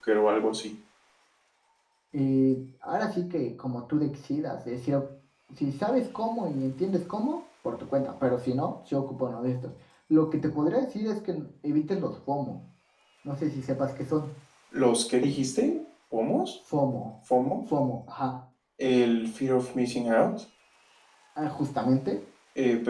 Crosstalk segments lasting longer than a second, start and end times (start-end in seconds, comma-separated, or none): none